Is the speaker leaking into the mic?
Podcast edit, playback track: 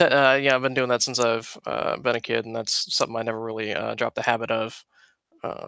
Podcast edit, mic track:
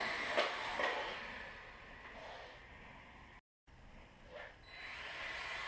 No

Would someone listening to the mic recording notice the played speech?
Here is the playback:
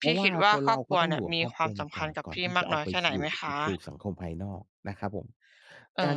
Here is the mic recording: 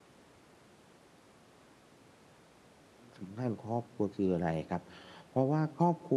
No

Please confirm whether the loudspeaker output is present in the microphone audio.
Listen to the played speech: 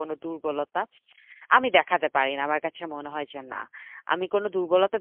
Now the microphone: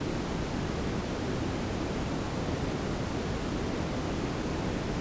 No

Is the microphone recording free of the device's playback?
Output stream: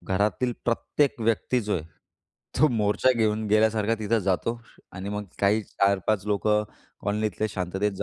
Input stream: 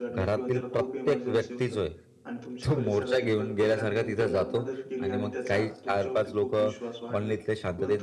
No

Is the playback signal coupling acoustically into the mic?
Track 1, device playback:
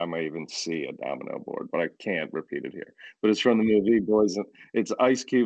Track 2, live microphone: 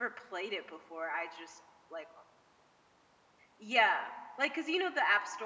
No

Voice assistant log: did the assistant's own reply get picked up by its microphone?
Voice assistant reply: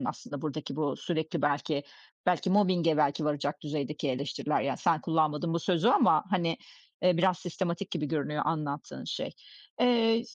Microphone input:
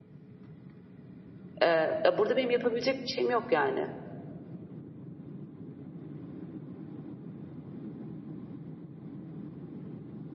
No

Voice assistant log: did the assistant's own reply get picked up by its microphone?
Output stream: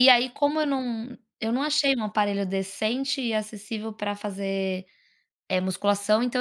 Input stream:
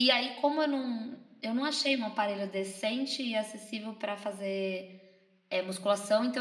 Yes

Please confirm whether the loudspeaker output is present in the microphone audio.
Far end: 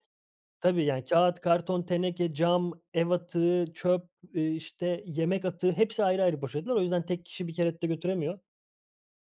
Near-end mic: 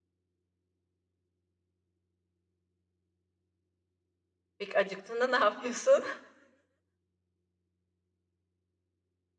No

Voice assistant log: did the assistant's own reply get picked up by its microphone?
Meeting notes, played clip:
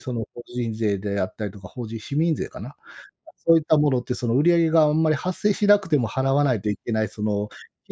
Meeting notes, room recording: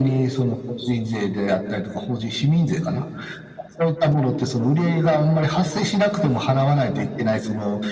Yes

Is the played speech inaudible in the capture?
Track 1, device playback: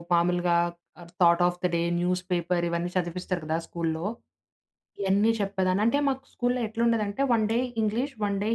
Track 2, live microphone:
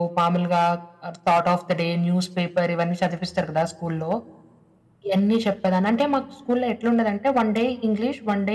No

